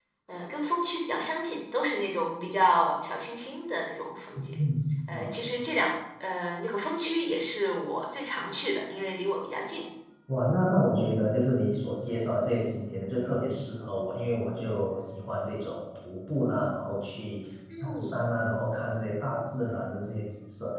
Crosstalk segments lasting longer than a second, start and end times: none

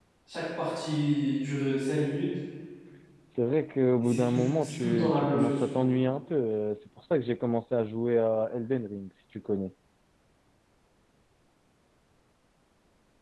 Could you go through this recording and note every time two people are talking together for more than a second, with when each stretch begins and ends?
4.0-5.9

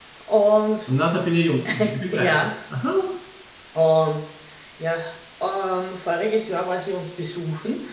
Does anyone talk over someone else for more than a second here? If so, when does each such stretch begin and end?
none

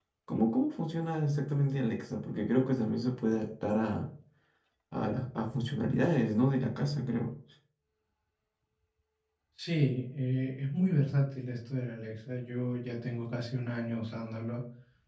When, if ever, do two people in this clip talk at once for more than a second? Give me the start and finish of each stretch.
none

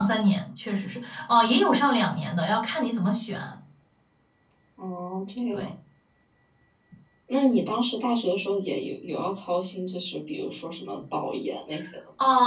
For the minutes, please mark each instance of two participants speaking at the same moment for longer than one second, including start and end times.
none

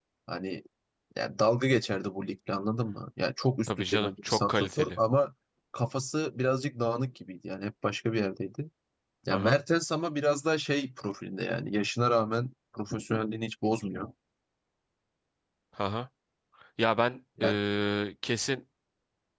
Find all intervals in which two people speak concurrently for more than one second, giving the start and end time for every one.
3.7-5.0

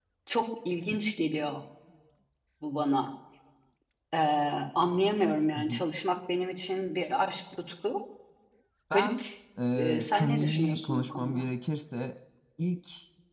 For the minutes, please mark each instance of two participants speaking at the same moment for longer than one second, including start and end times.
9.8-11.4

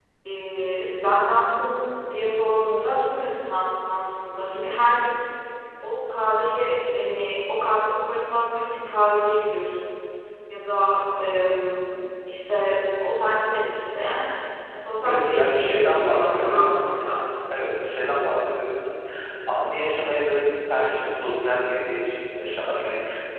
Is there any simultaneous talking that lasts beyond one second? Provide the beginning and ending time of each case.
15.0-16.8

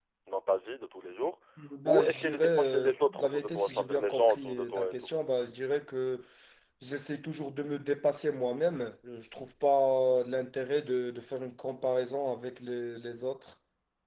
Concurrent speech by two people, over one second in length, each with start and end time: 1.9-5.0

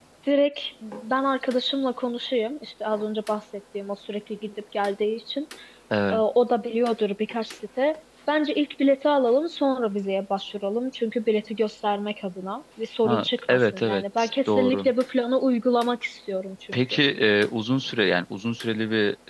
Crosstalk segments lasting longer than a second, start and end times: 13.0-14.9

